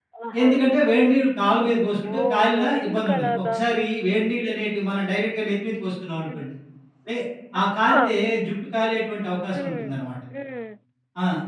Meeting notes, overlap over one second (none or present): present